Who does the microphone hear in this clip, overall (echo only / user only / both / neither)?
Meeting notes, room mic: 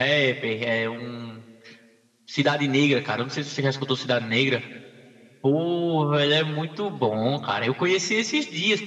echo only